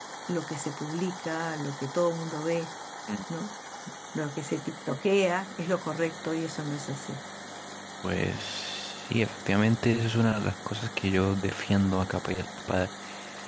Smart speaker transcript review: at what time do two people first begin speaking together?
none

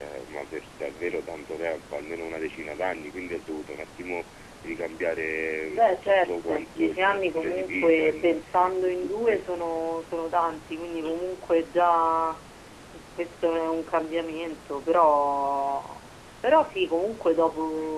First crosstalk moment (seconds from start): 5.7 s

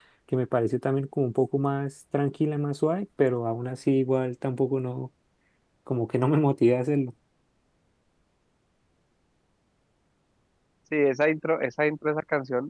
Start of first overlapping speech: none

